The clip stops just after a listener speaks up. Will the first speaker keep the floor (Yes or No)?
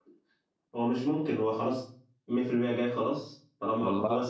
Yes